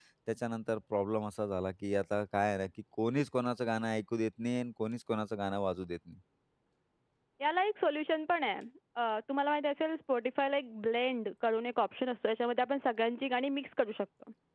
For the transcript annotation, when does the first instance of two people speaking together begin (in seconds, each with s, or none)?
none